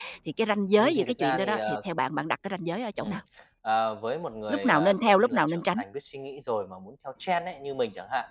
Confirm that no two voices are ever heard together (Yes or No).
No